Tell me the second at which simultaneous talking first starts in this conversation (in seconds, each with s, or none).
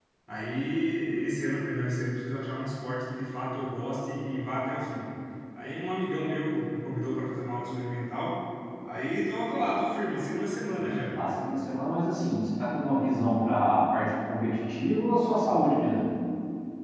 none